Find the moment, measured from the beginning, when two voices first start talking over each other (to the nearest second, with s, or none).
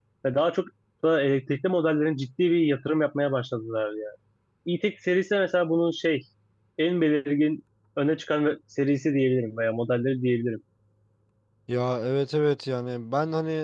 none